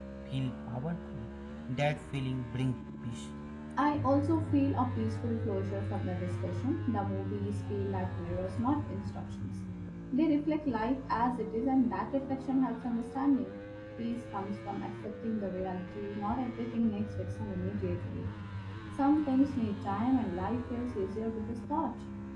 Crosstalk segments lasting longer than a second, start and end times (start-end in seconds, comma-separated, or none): none